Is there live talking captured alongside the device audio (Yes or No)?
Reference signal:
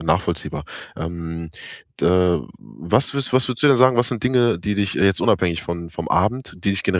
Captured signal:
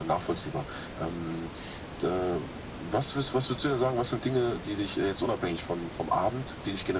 No